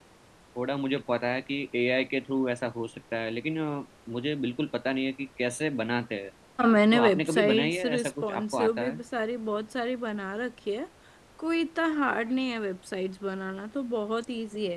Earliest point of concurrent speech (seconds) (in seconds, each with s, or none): 6.9 s